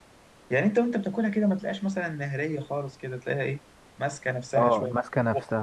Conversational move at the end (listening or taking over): taking over